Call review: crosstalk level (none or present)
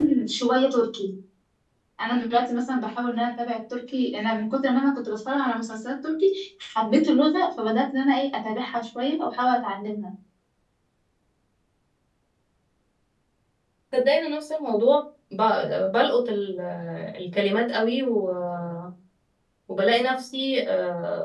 none